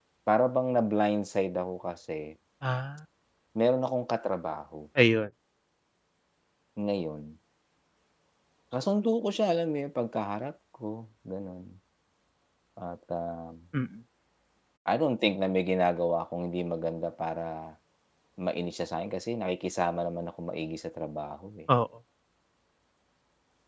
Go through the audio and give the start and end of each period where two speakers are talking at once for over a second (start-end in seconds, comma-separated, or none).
none